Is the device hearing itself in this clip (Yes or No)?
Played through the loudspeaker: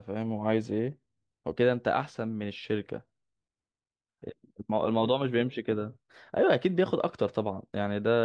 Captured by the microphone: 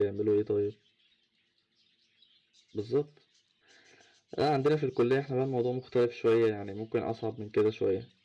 No